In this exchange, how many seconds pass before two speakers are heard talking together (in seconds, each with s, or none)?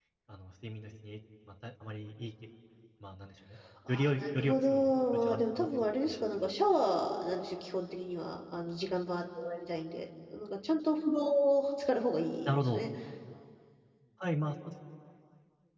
3.9 s